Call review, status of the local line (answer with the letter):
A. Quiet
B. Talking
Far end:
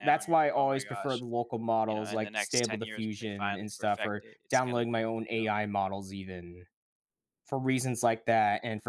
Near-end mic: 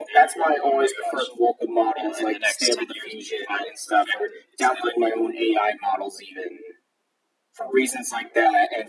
A